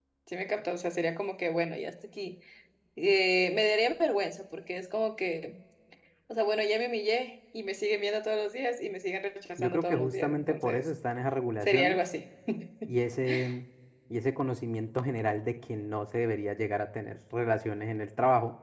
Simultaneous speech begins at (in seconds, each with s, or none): 9.6 s